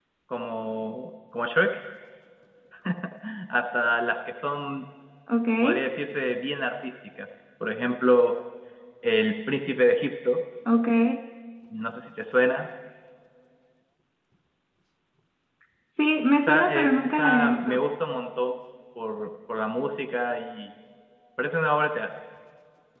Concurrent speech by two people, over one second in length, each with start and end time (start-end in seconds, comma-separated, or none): 16.3-17.8